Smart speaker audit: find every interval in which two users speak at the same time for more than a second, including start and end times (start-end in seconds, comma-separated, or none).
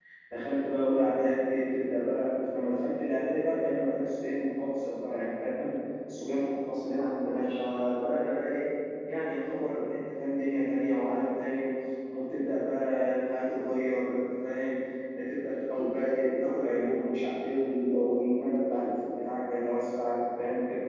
none